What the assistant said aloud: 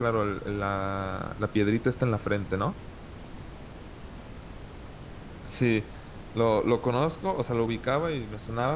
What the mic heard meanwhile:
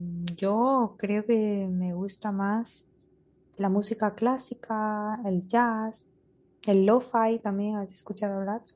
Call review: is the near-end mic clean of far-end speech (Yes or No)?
Yes